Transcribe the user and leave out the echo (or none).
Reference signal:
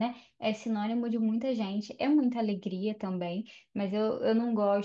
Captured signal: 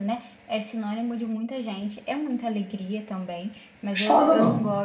gostosa, não.